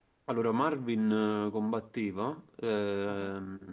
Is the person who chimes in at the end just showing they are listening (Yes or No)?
Yes